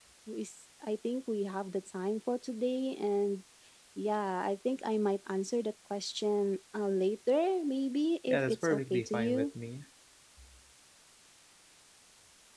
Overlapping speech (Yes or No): Yes